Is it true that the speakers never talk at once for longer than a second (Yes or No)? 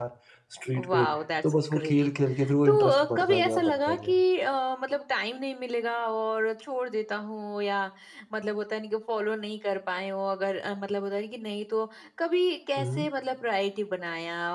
No